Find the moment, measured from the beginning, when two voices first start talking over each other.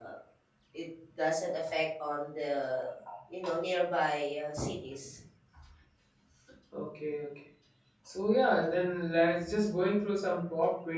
none

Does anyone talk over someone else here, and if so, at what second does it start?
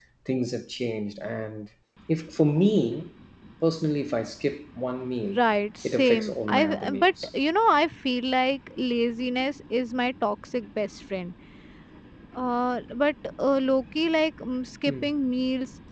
6 s

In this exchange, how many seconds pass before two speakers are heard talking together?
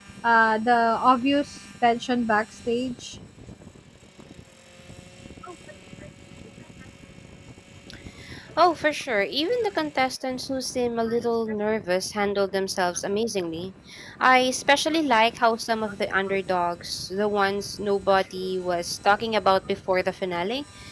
none

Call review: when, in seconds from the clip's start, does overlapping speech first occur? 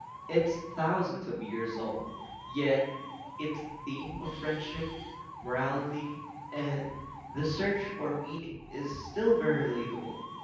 none

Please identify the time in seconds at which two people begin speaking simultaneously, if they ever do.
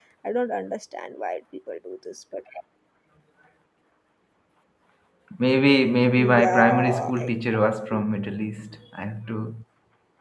6 s

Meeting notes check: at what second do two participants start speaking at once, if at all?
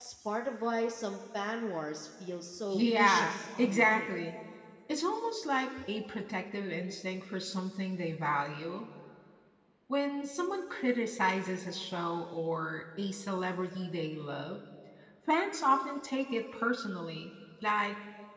3 s

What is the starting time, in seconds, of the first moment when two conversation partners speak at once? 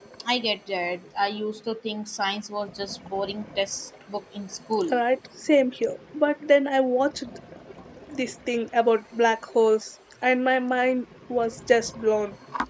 none

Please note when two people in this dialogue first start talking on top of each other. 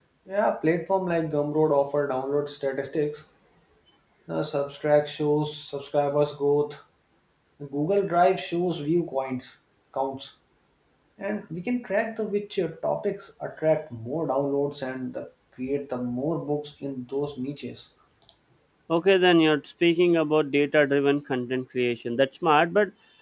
none

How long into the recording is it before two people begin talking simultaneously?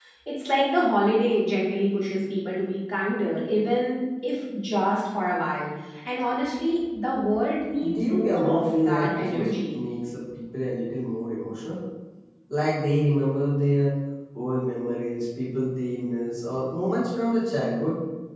8 s

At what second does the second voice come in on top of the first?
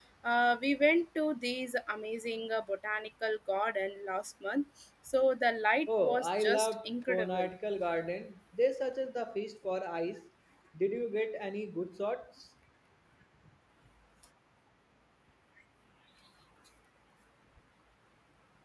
6 s

